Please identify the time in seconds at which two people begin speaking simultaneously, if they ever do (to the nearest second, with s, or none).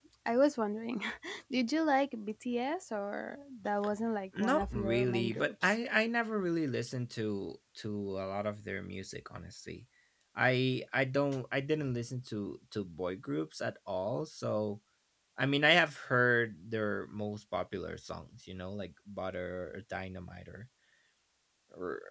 4 s